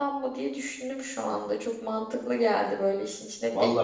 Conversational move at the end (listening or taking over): taking over